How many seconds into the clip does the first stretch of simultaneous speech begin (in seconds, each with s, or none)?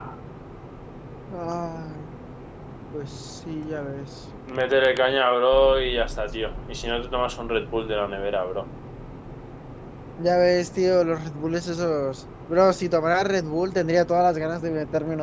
none